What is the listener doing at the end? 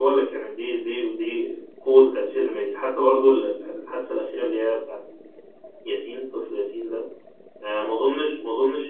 listening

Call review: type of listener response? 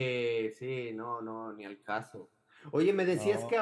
listening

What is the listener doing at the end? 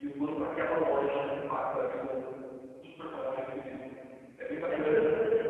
taking over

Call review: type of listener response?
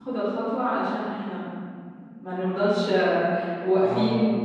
listening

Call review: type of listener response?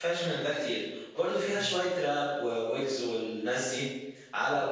listening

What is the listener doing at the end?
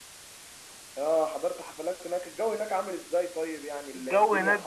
taking over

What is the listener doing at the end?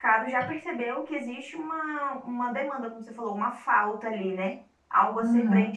listening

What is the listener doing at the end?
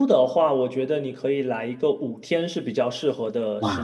taking over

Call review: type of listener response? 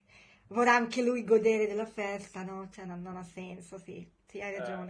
taking over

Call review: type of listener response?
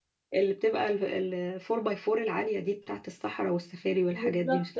taking over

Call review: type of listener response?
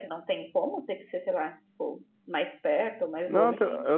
taking over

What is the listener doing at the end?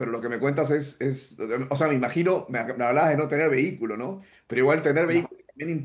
listening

